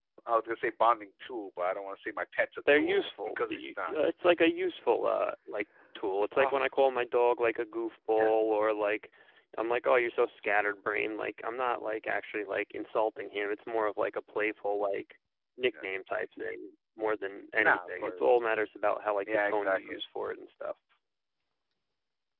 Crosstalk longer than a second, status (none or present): present